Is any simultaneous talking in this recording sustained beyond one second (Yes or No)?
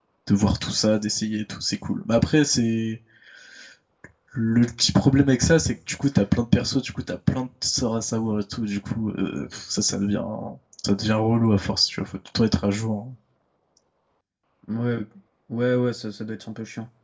No